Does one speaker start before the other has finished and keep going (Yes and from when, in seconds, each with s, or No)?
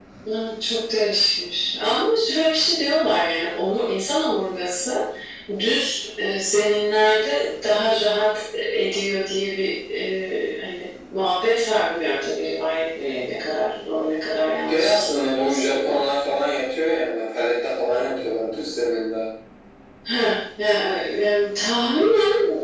Yes, from 14.7 s